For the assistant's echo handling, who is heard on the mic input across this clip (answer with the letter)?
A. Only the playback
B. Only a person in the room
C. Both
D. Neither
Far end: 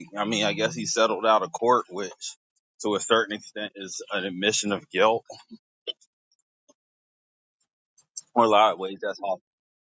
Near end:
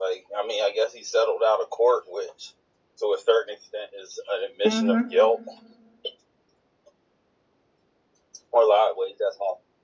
C